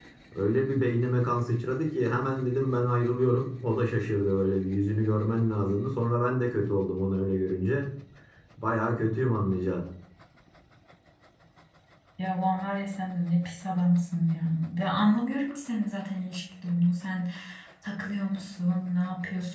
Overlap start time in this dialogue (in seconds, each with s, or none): none